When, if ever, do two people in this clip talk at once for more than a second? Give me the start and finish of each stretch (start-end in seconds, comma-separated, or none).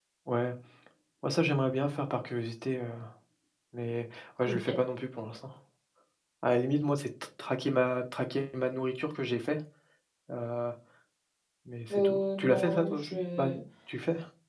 11.9-13.5